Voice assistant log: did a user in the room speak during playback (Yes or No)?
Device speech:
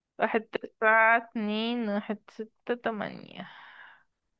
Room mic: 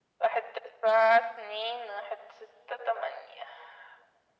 No